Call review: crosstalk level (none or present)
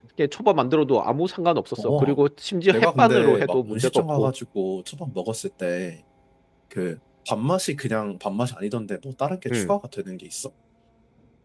present